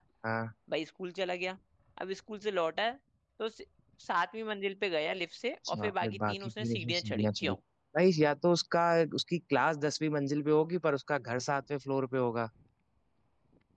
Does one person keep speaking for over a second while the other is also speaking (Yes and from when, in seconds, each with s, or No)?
Yes, from 5.6 s